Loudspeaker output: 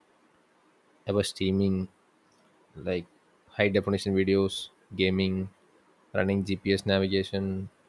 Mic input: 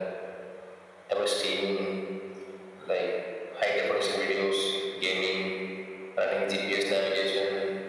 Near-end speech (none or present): none